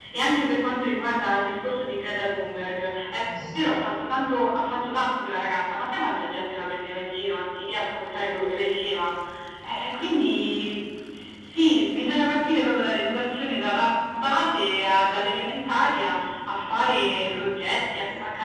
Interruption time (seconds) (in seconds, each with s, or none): none